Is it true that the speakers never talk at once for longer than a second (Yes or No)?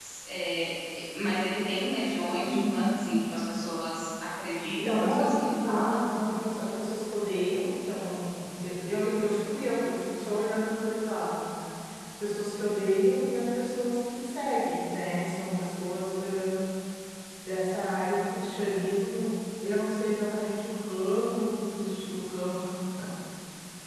No